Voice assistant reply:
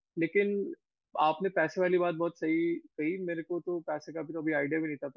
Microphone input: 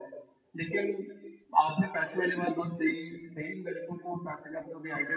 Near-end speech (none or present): none